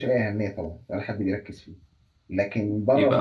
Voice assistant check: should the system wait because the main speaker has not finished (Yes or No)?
Yes